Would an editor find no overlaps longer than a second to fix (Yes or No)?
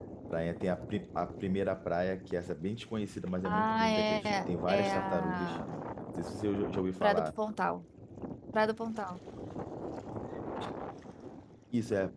No